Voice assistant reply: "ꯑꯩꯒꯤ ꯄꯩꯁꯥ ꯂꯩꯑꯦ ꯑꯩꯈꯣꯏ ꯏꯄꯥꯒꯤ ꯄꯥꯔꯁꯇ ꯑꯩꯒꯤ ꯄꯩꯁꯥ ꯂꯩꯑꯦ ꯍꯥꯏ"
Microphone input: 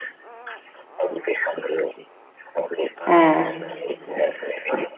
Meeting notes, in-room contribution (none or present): present